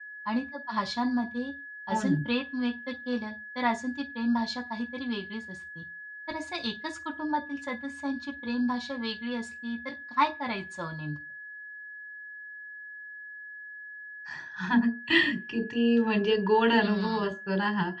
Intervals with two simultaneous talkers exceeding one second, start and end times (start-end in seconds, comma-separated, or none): none